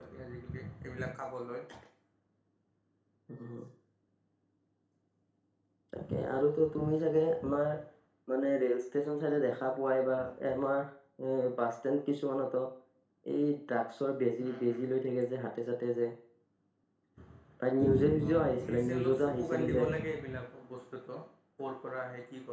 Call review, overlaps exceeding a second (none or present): present